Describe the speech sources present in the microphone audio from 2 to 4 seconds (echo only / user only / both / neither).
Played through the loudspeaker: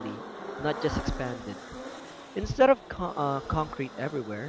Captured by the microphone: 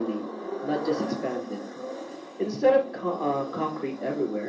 echo only